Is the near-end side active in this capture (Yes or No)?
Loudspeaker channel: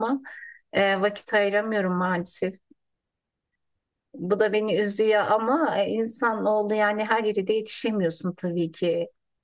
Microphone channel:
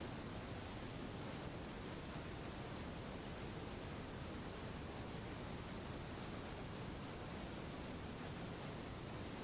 No